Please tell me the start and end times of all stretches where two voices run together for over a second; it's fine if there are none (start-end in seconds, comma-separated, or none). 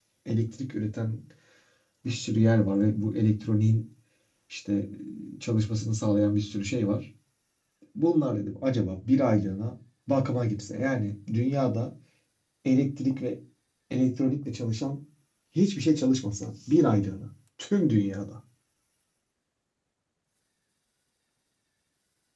none